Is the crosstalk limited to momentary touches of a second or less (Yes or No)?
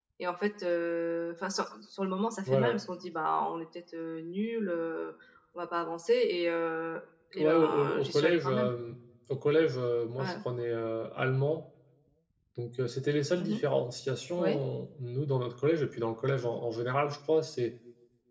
No